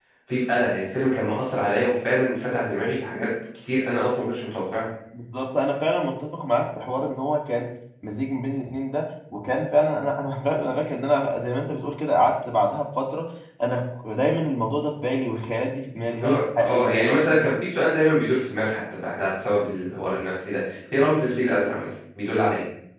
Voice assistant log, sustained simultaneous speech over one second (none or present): present